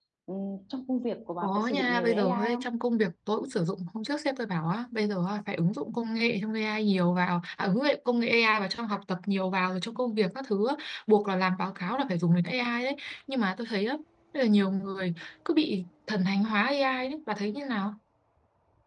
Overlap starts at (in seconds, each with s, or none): 1.4 s